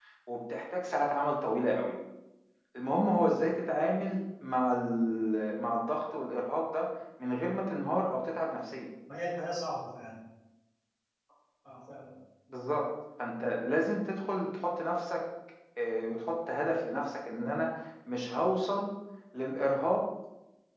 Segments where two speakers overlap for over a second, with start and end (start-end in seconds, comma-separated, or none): none